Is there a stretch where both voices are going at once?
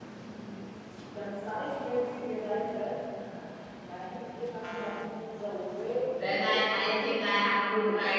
Yes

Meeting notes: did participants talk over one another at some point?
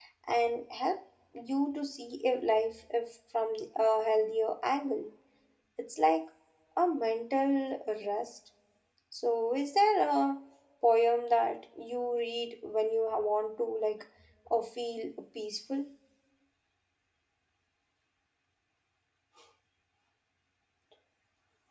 No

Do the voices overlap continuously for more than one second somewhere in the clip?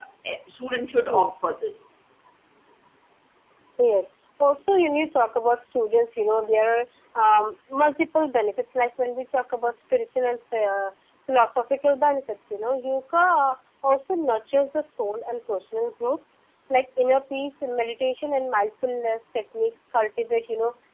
No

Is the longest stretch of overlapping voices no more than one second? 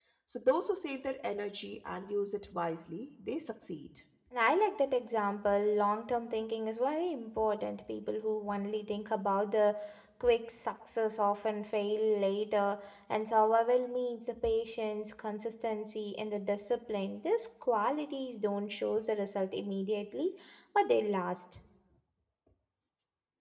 Yes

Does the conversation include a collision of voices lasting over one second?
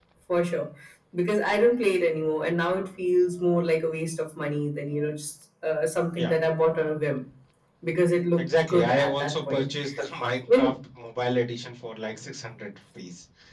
Yes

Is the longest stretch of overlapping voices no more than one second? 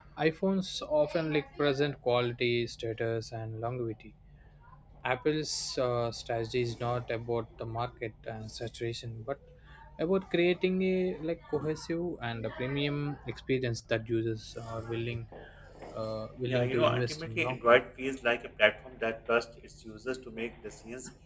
No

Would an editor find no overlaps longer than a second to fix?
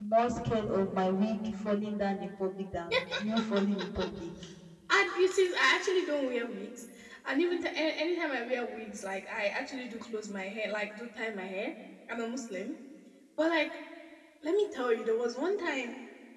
Yes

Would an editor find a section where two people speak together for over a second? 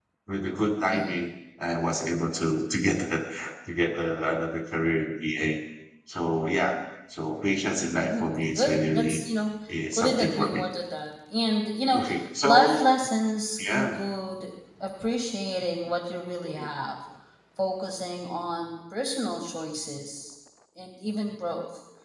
Yes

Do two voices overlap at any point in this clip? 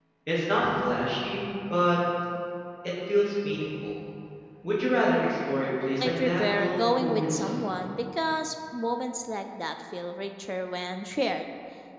Yes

